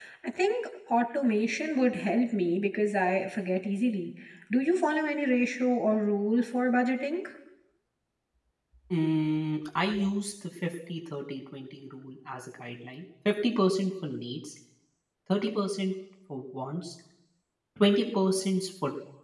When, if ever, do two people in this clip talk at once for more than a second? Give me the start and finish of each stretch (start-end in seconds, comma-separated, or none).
none